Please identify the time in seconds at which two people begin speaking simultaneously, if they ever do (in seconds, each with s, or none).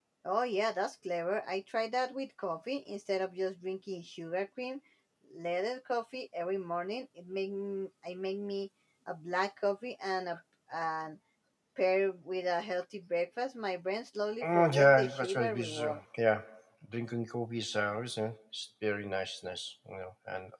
14.4 s